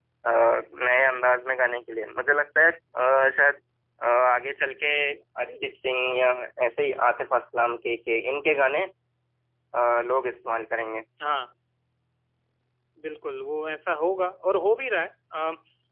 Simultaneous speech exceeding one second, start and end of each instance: none

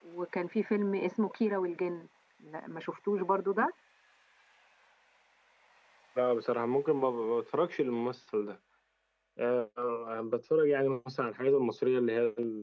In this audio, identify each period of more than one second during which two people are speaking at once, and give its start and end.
none

